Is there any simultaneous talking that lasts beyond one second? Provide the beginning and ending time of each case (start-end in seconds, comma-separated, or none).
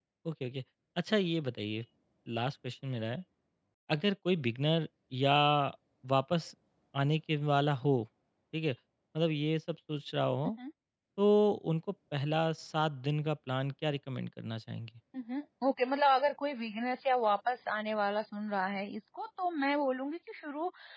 none